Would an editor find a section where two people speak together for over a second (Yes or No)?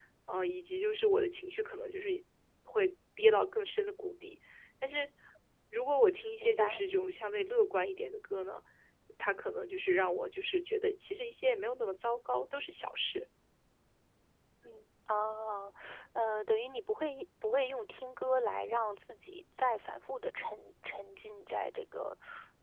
No